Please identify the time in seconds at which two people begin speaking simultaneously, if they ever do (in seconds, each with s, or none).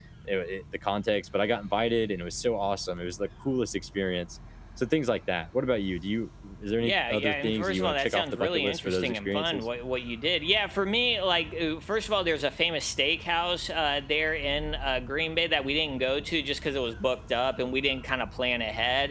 6.8 s